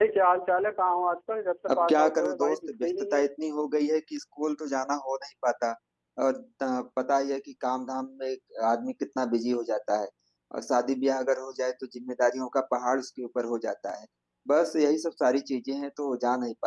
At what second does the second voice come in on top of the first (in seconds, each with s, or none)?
1.7 s